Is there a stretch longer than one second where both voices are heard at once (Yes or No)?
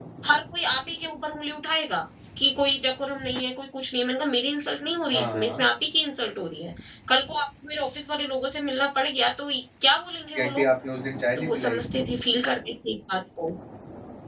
No